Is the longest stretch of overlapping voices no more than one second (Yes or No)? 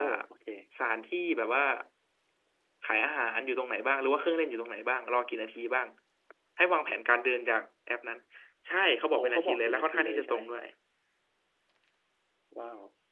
No